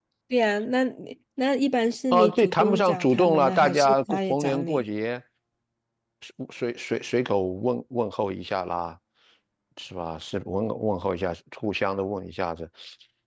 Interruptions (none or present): present